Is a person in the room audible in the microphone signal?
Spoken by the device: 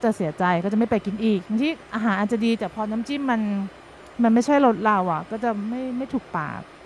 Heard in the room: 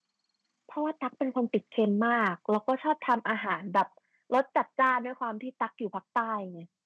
Yes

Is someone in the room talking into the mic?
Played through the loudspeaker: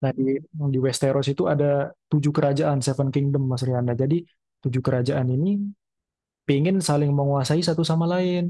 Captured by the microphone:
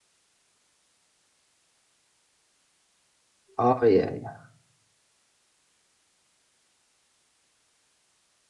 Yes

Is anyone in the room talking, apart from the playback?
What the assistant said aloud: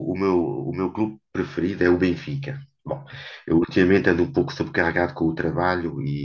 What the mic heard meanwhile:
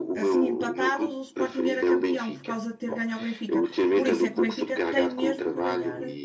Yes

